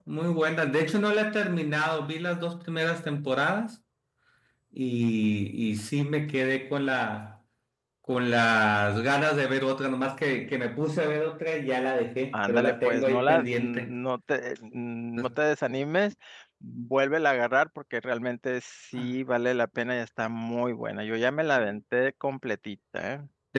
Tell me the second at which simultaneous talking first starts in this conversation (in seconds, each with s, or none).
12.3 s